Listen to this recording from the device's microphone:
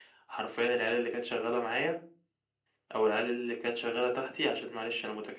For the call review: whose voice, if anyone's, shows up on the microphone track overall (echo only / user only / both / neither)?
echo only